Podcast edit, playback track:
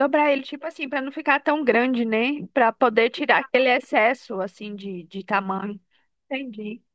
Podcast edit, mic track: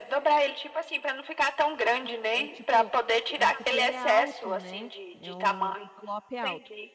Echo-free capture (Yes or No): No